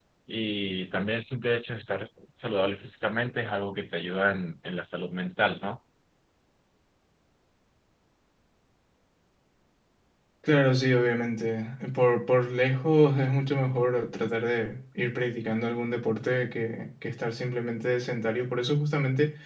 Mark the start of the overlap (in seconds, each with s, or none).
none